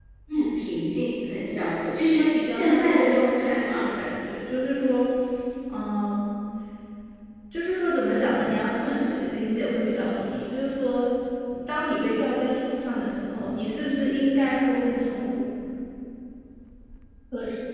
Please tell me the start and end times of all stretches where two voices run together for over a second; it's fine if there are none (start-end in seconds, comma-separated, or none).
2.2-3.9